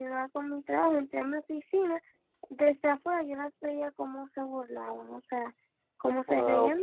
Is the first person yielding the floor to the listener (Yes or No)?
Yes